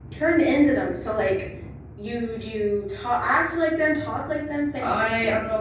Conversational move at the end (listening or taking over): taking over